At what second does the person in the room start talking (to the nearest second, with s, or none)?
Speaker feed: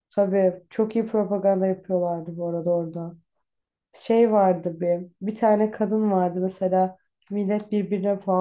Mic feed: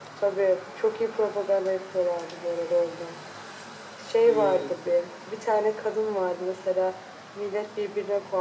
4 s